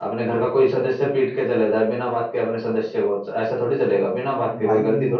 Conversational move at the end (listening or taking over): taking over